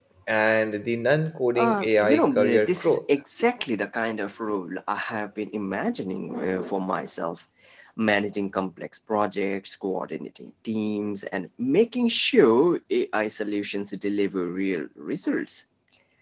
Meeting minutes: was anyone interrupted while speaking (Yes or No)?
Yes